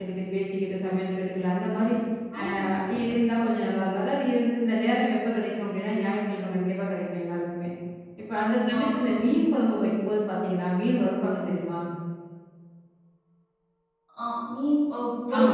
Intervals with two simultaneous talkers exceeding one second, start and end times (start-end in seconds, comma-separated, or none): none